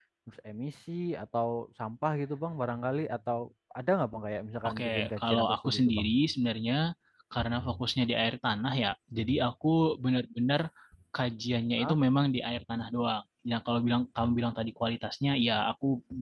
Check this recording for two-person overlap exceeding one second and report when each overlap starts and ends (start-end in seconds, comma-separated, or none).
4.7-6.1